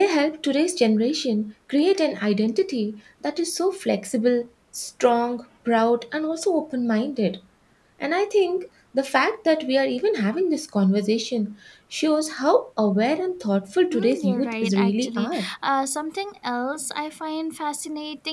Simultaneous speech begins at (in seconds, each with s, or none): 13.9 s